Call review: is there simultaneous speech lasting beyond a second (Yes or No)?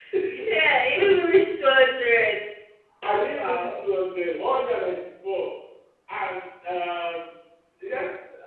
No